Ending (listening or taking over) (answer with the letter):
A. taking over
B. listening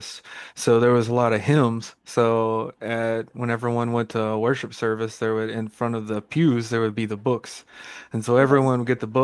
B